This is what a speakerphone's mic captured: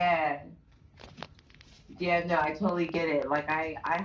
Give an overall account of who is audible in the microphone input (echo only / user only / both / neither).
echo only